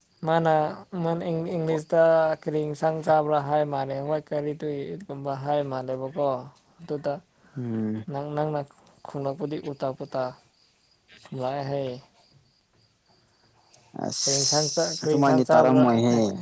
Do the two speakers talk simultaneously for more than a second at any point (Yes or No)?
Yes